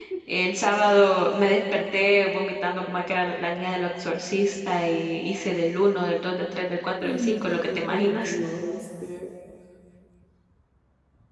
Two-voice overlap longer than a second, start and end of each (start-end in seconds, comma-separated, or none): 7.0-8.3